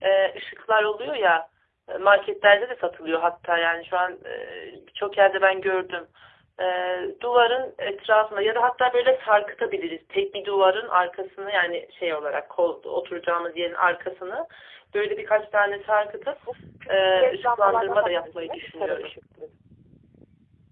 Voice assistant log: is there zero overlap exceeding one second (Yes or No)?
No